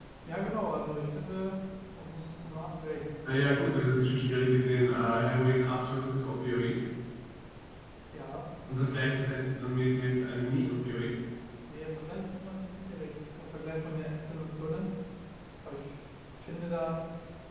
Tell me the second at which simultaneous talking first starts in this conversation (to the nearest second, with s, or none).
none